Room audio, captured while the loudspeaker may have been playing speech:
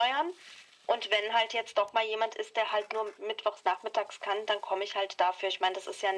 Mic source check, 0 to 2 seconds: echo only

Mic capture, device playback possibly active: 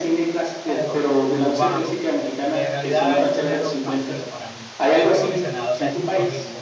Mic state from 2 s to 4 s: both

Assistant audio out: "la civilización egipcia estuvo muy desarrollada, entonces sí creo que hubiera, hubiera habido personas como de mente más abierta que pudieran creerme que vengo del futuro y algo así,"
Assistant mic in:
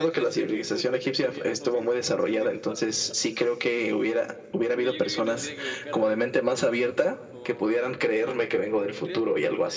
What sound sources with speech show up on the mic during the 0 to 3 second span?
both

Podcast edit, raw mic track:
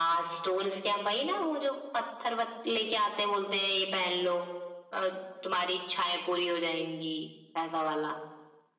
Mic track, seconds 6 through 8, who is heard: echo only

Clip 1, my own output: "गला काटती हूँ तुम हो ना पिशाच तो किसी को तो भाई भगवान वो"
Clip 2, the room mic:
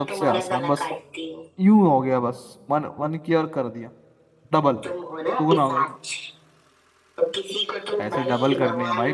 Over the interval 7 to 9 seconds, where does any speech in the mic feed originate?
both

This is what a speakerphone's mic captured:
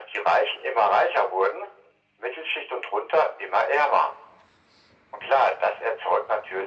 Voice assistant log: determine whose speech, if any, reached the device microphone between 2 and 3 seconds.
echo only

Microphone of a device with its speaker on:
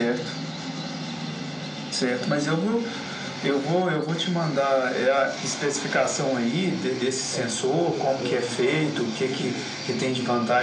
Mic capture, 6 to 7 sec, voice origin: both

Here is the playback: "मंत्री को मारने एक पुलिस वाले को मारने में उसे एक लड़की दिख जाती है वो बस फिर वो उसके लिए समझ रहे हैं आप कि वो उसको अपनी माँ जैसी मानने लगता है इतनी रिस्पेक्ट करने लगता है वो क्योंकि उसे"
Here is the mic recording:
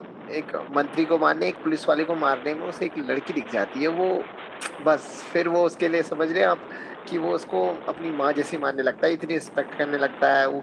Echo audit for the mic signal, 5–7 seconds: echo only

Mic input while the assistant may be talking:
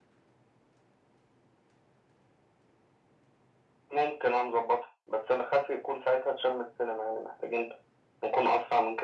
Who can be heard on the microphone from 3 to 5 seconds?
echo only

